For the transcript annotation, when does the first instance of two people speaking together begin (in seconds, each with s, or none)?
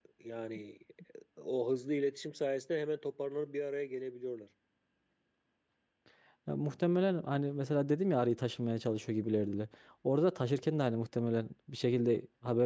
none